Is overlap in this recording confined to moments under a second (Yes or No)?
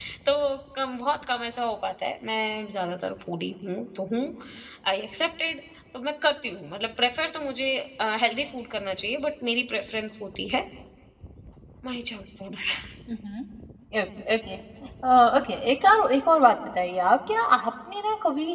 Yes